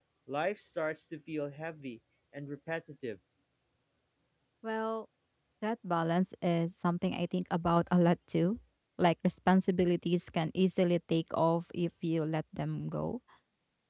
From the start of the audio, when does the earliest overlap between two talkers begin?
none

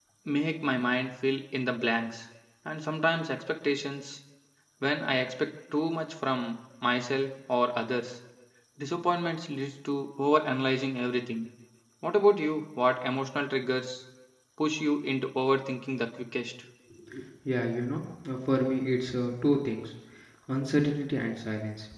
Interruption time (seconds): none

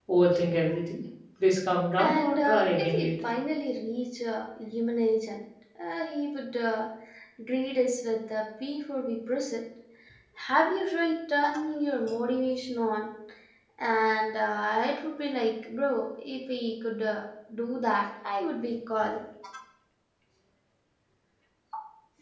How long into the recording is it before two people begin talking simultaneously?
2 s

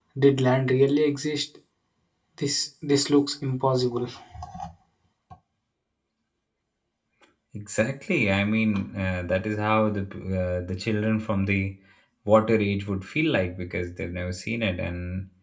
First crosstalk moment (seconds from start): none

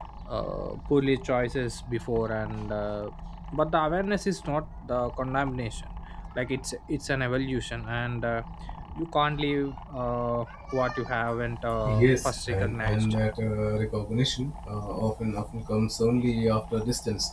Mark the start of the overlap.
12 s

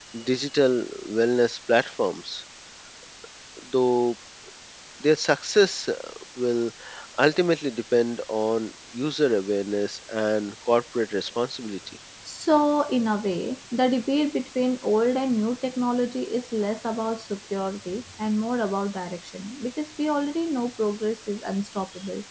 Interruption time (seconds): none

